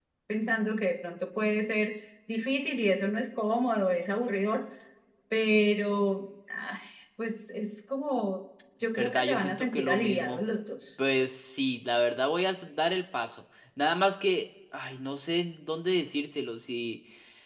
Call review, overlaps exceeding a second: present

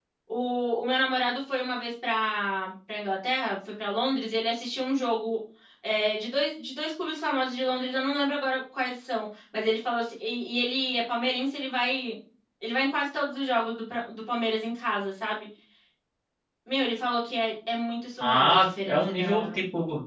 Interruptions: present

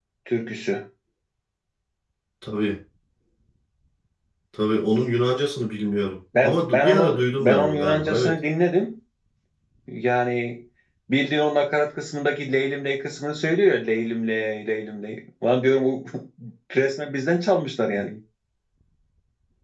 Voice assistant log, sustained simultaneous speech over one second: present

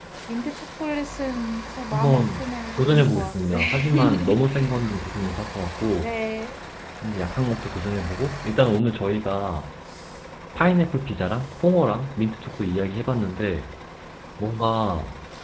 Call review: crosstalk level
present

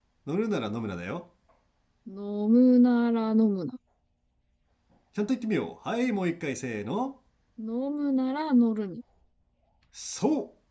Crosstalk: none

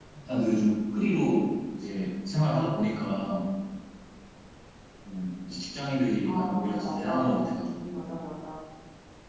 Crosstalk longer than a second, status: present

